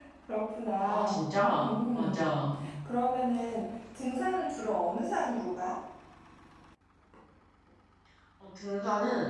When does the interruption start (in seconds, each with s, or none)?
0.8 s